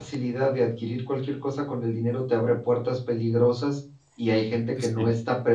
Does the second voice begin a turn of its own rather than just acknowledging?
No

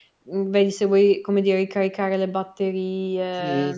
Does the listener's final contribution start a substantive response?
Yes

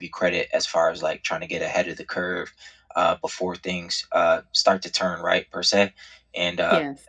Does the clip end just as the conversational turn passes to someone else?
No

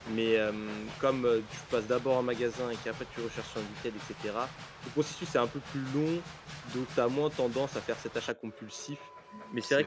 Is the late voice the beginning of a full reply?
No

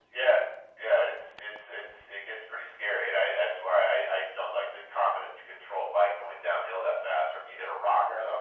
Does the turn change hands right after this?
No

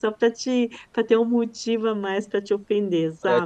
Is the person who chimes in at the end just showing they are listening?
No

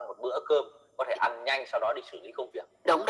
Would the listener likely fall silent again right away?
No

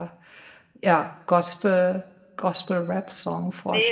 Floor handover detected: Yes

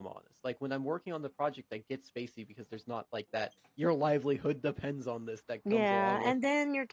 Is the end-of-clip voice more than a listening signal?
Yes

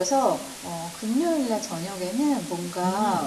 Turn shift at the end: No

